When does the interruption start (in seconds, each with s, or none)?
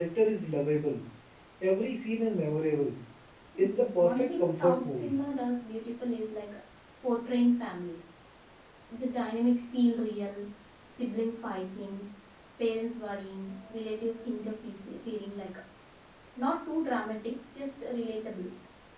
3.6 s